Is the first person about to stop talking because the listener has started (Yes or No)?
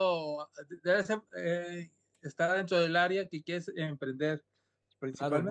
Yes